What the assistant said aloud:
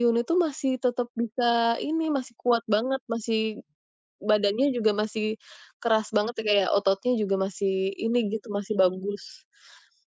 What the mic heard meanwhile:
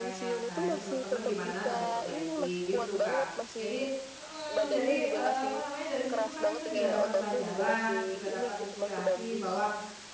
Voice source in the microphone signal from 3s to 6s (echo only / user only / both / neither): both